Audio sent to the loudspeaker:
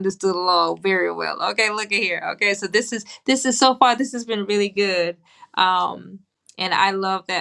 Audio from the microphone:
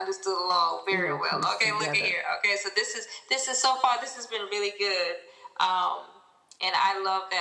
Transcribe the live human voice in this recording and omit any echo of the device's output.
you know, comes together.

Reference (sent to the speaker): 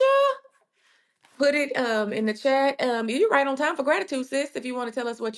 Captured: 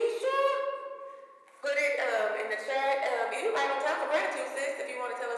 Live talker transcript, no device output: none

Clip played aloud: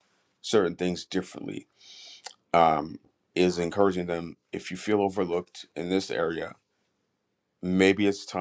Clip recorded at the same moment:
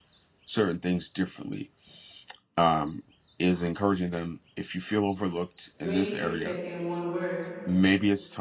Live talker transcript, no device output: great leadership in one word,

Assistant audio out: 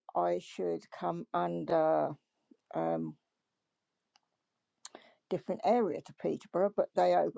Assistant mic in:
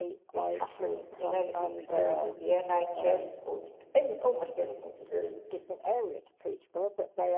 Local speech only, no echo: this happens in anything to do with the NHS or to any almost anything to do

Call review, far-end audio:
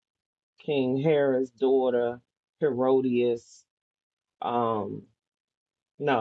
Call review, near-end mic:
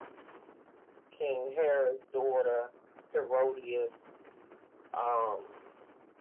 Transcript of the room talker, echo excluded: none

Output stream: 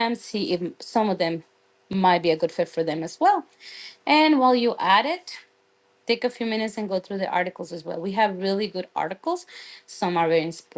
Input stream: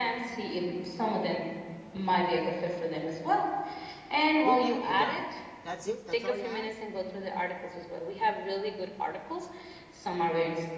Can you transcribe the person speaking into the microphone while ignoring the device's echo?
With that, you're done. That's it. That's all you had.

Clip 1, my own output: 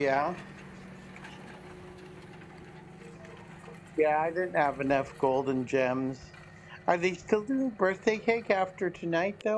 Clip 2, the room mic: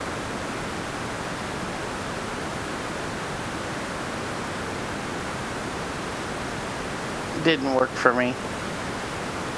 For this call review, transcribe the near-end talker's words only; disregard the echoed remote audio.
didn't work for me.

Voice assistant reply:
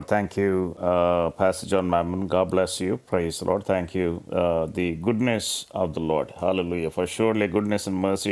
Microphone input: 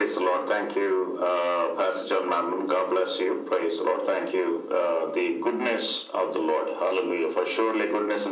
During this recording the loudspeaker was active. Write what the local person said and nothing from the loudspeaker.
none

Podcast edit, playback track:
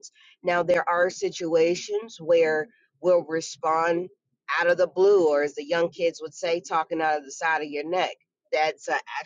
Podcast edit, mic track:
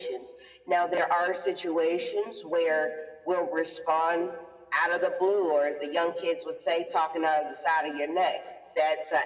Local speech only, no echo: none

